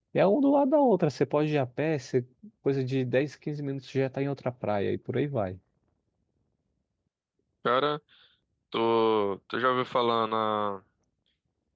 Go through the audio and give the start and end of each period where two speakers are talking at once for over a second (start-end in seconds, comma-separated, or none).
none